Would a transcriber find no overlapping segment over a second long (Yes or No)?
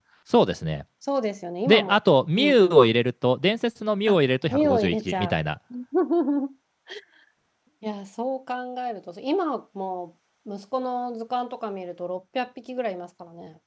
No